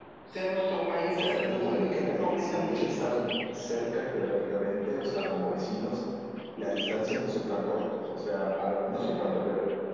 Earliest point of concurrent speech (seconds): 1 s

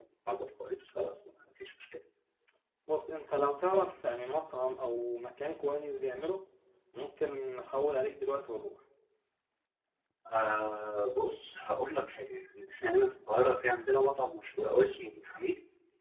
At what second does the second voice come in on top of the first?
none

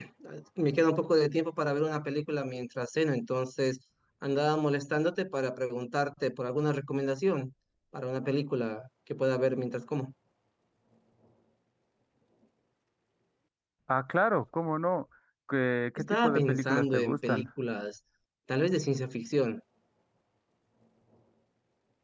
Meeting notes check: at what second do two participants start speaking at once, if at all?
16 s

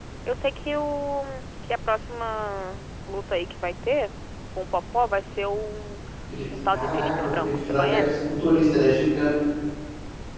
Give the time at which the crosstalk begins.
7 s

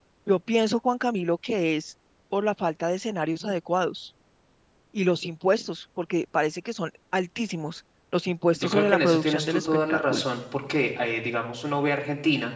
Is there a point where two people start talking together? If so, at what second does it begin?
9 s

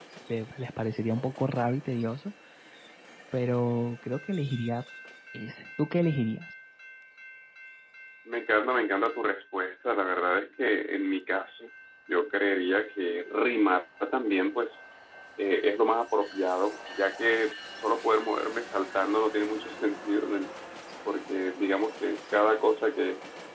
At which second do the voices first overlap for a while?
none

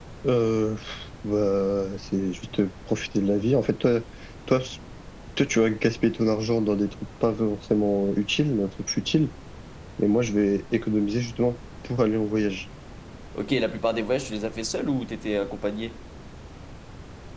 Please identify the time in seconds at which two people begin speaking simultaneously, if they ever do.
none

